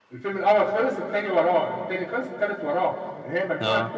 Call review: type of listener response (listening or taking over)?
listening